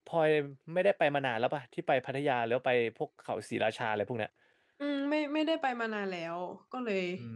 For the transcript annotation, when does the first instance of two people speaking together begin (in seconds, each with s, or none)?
none